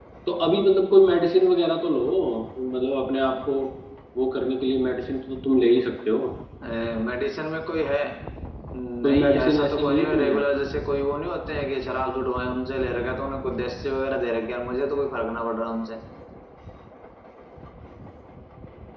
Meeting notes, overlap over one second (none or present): present